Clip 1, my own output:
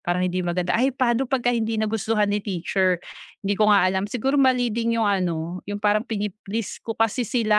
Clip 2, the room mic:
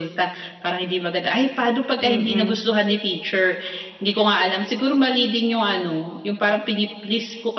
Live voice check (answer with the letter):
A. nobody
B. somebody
B